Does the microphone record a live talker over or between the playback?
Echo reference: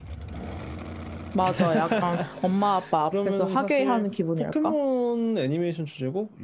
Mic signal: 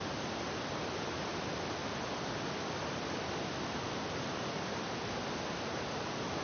No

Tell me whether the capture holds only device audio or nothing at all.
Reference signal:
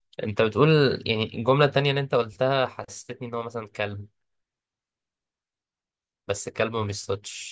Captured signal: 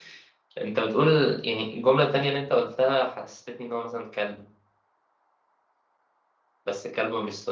Yes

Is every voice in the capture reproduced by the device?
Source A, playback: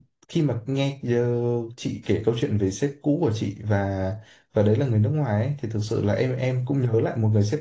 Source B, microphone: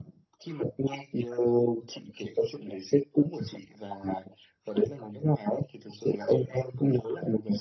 Yes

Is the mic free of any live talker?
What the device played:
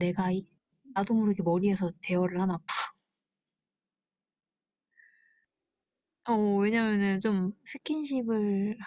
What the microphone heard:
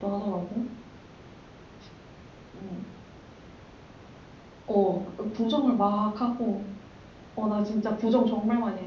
No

